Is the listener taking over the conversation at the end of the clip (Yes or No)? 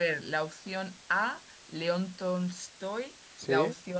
No